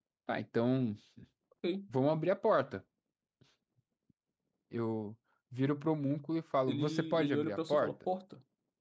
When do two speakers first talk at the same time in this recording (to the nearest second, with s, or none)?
7 s